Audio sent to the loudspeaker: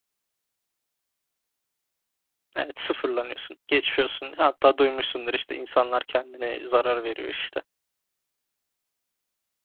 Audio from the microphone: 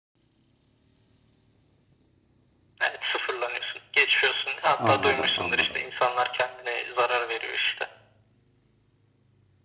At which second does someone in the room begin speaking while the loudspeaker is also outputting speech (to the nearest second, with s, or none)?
5 s